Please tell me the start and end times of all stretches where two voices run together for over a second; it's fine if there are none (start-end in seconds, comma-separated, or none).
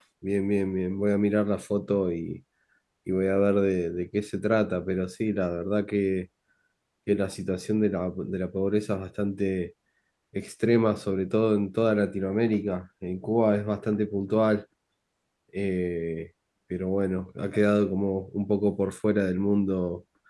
none